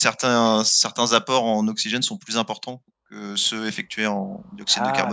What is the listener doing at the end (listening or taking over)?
taking over